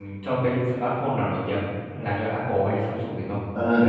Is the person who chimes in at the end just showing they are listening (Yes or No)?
No